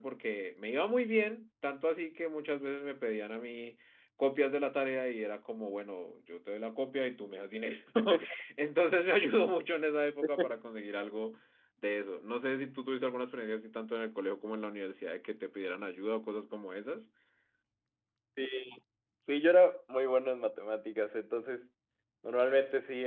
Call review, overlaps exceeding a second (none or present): none